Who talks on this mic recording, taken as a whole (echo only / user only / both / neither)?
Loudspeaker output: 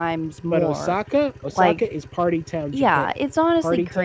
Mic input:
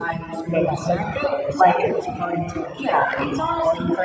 echo only